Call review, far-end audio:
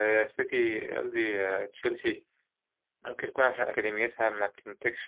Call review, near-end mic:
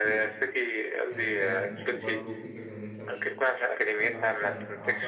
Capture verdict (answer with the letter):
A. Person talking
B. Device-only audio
A